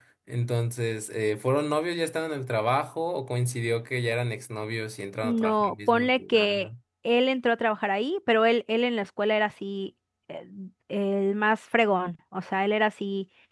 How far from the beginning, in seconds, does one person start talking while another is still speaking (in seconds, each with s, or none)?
5.2 s